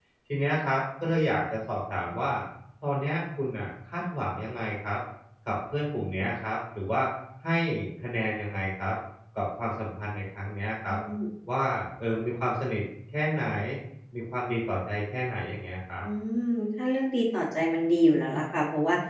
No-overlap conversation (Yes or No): Yes